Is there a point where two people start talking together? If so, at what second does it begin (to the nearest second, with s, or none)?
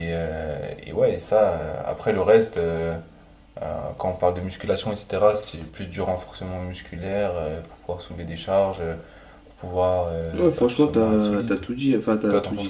10 s